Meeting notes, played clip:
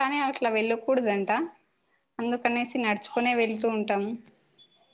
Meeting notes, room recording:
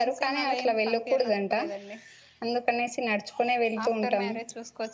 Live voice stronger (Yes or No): No